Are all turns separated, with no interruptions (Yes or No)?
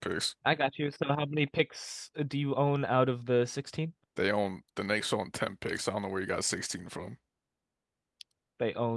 Yes